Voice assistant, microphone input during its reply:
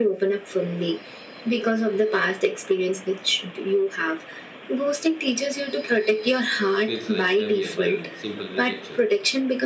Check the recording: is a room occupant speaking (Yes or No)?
Yes